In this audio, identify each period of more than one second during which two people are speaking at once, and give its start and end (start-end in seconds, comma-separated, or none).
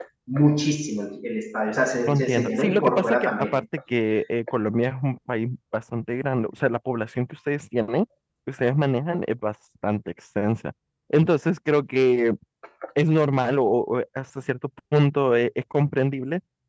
2.1-3.6